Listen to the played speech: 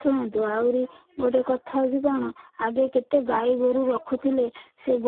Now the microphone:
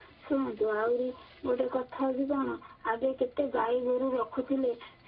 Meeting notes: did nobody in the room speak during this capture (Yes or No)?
Yes